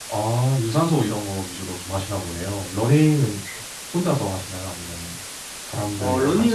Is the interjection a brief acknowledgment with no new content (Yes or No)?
No